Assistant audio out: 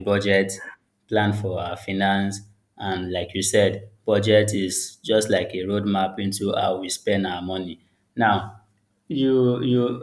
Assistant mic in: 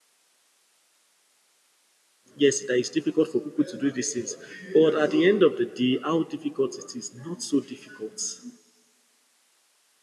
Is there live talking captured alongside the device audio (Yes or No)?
Yes